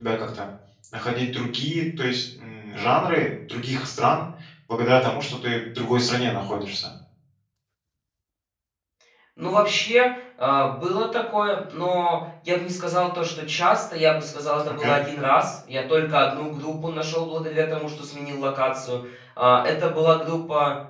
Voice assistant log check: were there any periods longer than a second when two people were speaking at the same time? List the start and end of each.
none

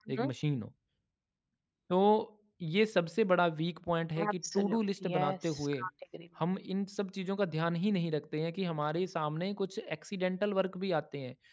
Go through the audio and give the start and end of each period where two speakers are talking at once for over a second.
4.2-5.8

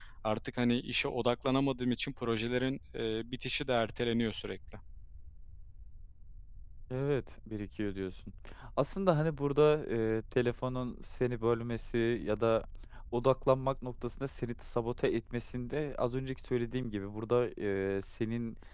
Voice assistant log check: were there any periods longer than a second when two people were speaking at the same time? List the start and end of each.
none

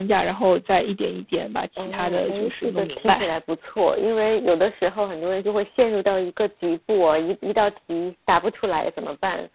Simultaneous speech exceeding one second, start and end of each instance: 1.8-3.2

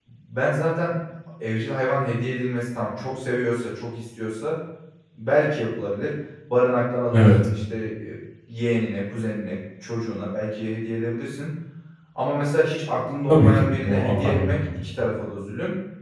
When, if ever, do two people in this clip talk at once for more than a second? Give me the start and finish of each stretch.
13.3-14.8

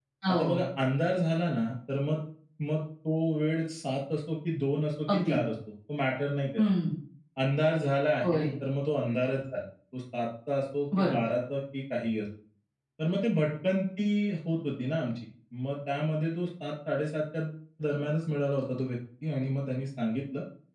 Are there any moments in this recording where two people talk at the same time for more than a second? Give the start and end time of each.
none

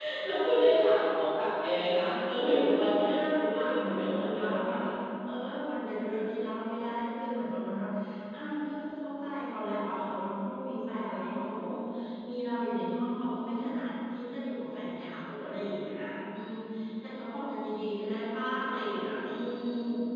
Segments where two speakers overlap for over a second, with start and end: 2.4-4.8

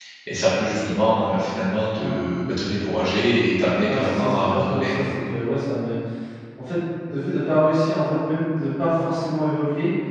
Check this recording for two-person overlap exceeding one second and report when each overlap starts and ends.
3.9-5.1

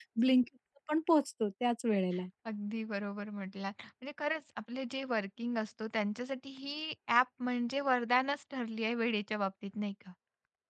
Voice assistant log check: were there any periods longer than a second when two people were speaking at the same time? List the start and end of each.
none

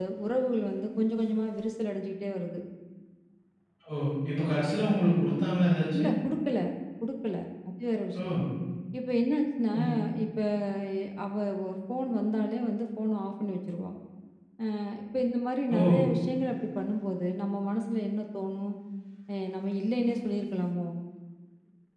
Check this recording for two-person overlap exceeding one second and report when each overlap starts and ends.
none

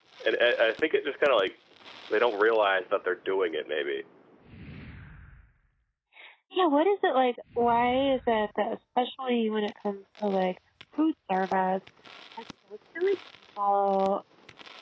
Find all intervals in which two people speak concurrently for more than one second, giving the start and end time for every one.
none

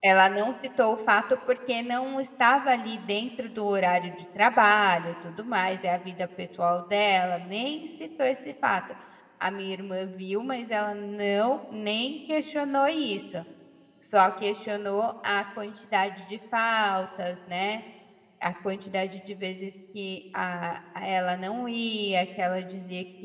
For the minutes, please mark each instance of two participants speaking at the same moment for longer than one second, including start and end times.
none

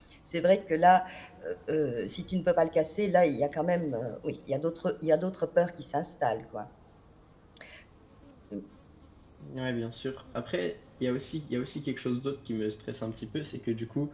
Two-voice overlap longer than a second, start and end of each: none

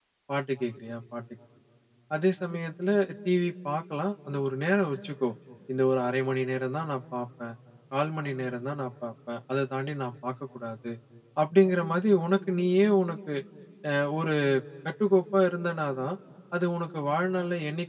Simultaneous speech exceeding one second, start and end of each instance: none

